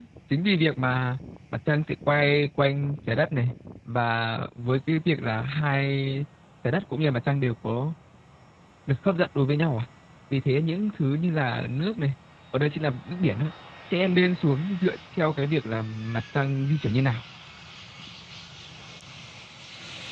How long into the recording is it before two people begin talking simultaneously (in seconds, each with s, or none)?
none